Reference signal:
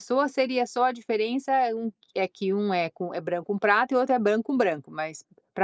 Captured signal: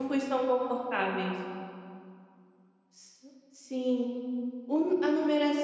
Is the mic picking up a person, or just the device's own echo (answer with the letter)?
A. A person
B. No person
A